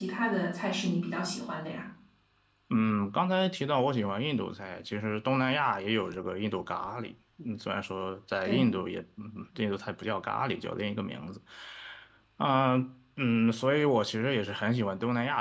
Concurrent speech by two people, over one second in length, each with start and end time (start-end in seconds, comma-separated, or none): none